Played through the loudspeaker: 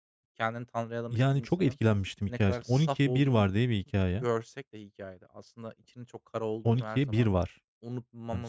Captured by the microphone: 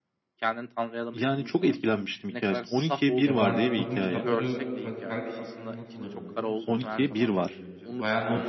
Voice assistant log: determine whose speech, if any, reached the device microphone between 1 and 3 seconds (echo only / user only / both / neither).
echo only